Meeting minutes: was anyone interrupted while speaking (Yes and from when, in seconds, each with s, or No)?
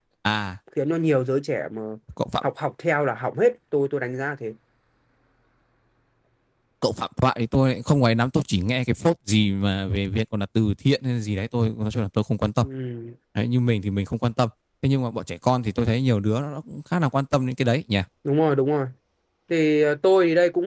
No